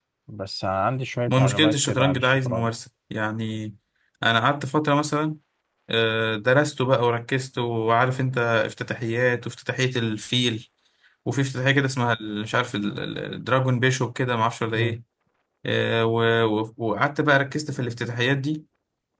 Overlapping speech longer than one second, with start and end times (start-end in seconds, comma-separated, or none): 1.3-2.7